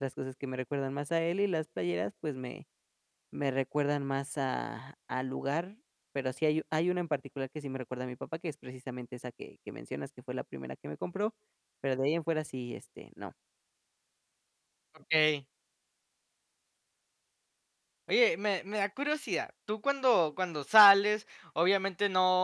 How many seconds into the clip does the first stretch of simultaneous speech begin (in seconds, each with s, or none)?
none